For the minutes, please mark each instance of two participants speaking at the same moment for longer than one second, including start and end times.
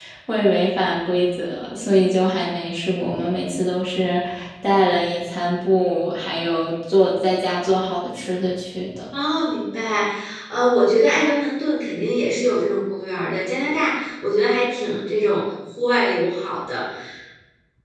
none

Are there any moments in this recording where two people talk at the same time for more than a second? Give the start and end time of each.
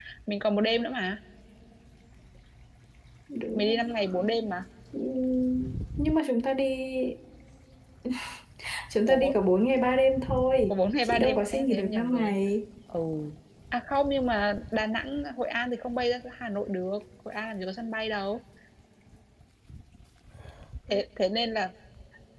10.7-12.3

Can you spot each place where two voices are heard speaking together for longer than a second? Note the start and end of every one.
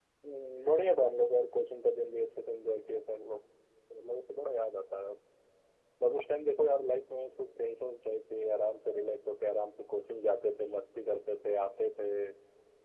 none

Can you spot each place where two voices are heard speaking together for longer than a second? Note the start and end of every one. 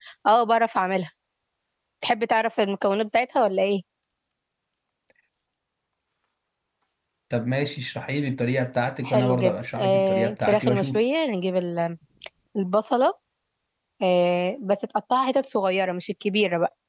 9.0-11.0

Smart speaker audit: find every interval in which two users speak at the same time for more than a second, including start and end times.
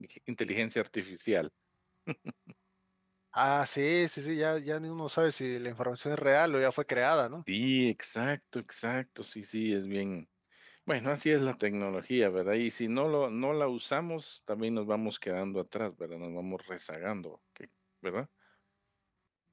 none

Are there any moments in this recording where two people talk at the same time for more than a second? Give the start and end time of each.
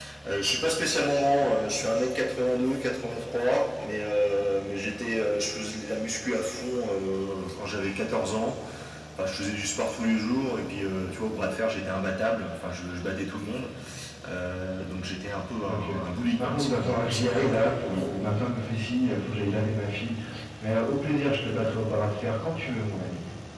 16.4-18.0

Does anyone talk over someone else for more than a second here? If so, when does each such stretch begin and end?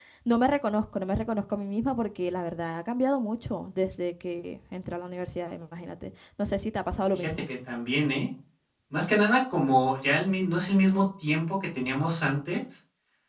none

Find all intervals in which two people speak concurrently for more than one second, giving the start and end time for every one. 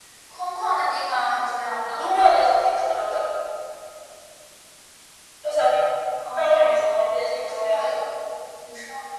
6.4-8.0

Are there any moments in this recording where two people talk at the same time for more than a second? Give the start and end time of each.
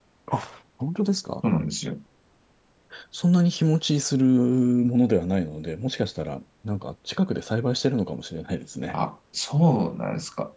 none

